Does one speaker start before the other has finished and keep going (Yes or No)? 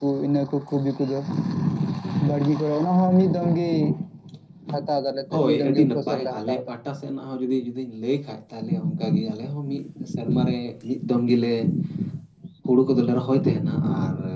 Yes